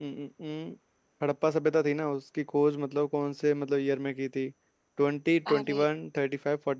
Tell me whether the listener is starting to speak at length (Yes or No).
No